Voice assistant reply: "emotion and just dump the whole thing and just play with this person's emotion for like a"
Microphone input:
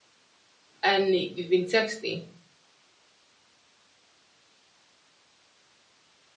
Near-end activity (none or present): present